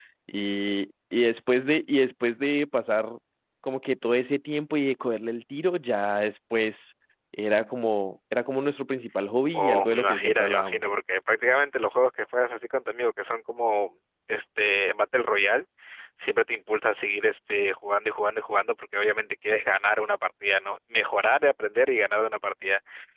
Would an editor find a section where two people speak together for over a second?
Yes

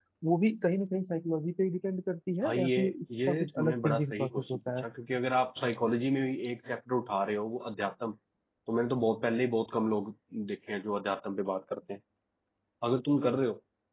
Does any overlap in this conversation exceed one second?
Yes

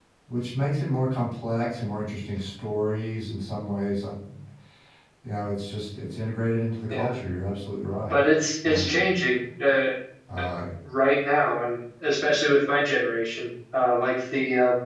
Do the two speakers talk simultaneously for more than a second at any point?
No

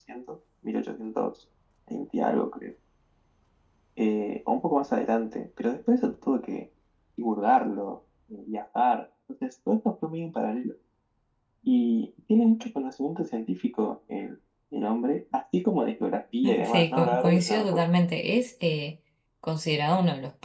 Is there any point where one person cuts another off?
Yes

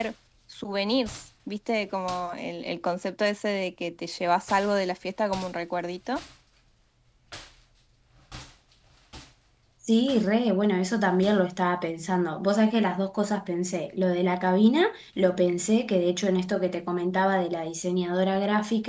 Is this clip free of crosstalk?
Yes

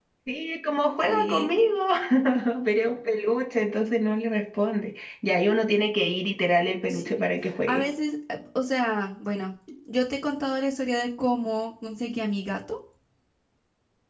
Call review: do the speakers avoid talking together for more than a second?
Yes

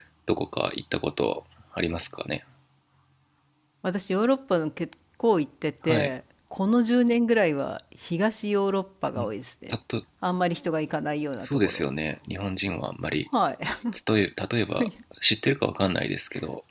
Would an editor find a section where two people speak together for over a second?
No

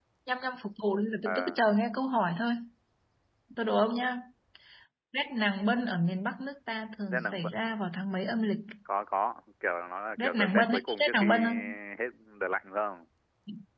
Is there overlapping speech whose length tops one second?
Yes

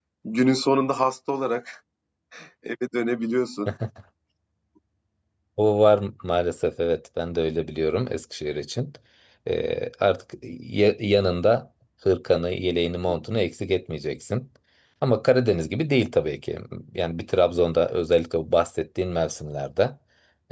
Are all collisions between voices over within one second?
Yes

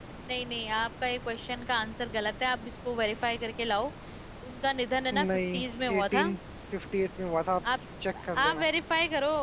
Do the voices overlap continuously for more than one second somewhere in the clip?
No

